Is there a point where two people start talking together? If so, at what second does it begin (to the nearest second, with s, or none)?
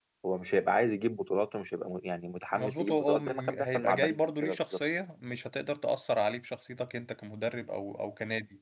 3 s